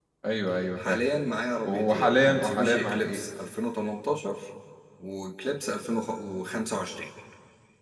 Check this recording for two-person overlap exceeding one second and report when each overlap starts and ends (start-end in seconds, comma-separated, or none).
1.6-3.2